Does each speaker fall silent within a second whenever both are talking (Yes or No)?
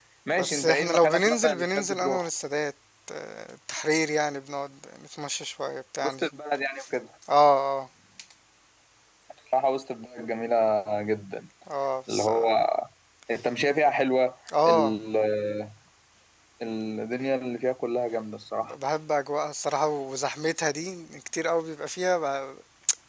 No